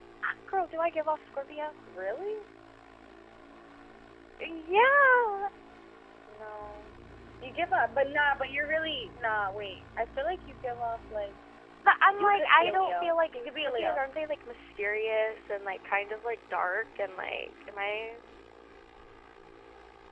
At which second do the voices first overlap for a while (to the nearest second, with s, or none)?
12 s